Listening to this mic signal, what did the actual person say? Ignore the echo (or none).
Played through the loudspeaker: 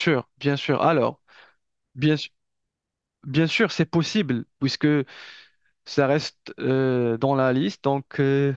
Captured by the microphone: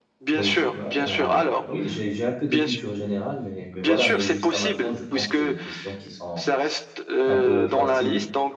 Oui, ouais, euh, oui, j'ai j'ai un peu de culture générale, mais, mais voilà, mais jusqu'à maintenant, je pense que c'est des questions qui sont un peu faciles.